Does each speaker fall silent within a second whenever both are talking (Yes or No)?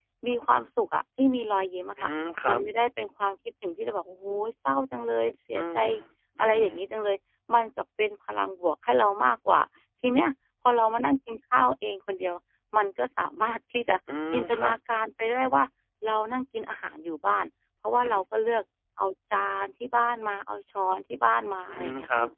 Yes